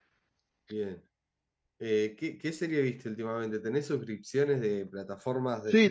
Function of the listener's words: taking over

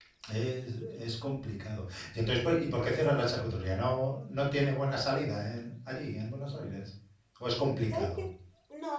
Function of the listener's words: taking over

